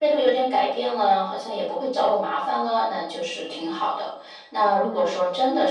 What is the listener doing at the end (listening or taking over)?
listening